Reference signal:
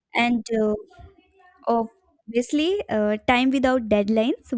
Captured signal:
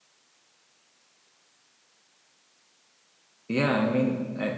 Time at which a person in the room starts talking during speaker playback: 3 s

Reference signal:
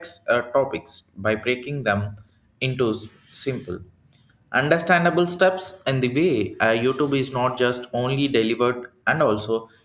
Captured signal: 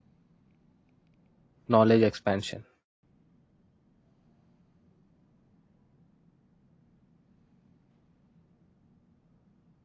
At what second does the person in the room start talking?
2 s

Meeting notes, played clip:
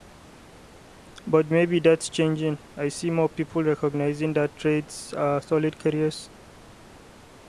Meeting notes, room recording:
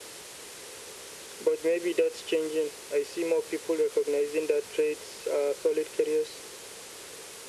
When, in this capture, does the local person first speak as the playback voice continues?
none

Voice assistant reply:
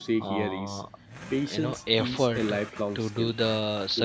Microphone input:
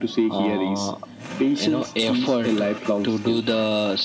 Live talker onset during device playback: none

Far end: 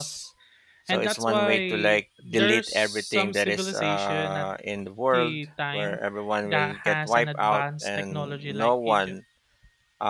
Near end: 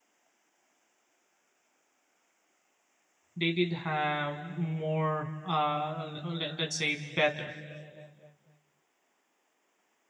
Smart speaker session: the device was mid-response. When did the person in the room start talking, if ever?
3 s

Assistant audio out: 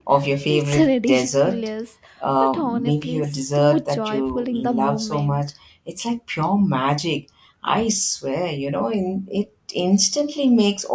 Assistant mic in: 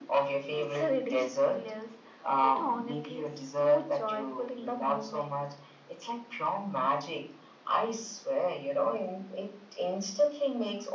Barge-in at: none

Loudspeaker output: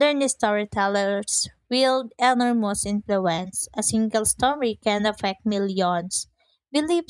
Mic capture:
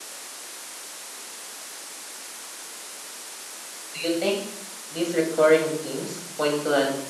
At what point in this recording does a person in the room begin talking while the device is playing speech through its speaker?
4 s

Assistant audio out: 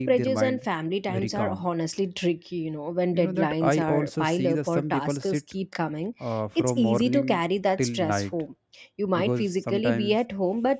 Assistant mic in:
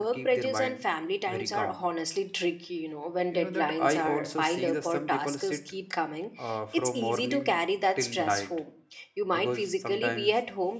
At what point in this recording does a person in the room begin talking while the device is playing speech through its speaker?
none

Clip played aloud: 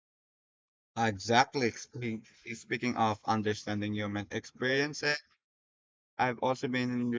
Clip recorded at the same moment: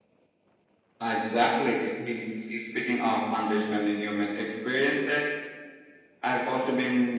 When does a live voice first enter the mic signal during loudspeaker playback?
none

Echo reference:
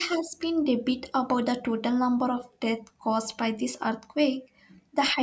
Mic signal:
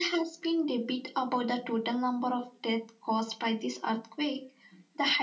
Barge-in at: none

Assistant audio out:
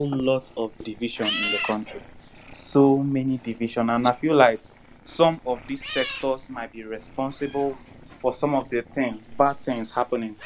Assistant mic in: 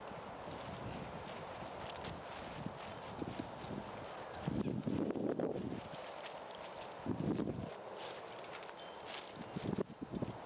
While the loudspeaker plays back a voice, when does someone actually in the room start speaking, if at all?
none

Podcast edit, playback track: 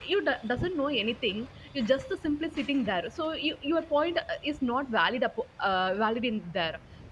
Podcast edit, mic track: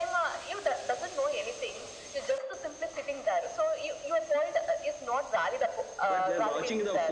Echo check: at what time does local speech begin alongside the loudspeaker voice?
6 s

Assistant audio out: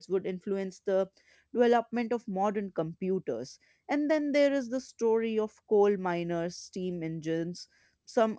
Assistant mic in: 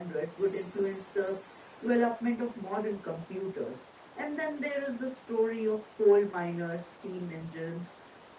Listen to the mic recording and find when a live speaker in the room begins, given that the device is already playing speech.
none

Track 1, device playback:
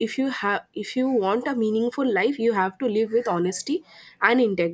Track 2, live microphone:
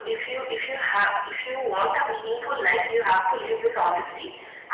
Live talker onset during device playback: none

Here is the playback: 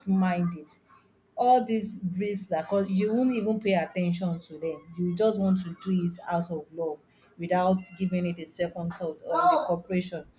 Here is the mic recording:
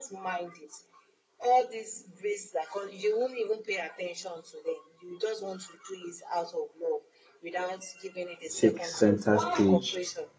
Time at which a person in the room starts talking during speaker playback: 9 s

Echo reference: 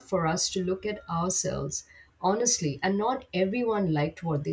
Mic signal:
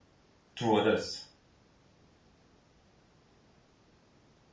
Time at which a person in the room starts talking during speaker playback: 1 s

